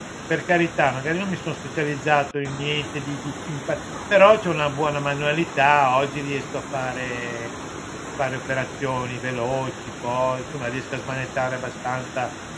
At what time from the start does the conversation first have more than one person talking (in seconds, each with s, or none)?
none